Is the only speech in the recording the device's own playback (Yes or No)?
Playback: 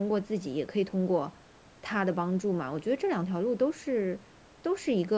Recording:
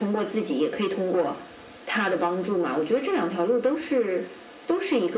Yes